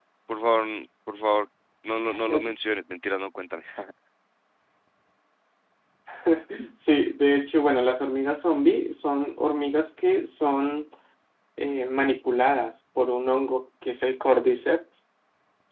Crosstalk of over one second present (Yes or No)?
No